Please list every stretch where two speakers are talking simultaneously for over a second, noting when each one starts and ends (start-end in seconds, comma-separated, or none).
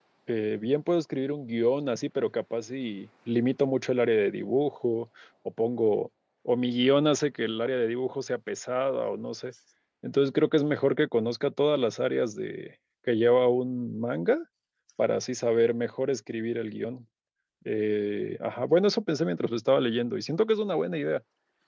none